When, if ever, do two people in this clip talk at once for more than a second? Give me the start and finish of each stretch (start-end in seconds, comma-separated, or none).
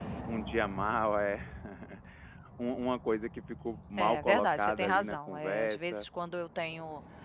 4.0-6.1